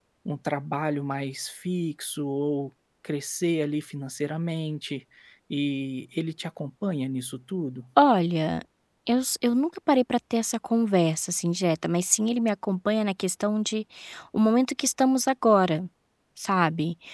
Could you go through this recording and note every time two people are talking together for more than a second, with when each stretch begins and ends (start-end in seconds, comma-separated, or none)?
none